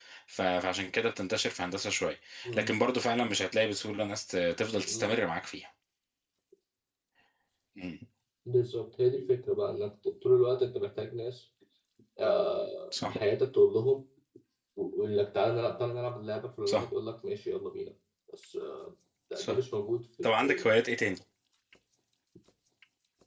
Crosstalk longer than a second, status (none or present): none